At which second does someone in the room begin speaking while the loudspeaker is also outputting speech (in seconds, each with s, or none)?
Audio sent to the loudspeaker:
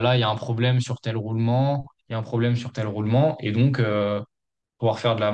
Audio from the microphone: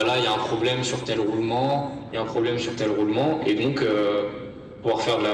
none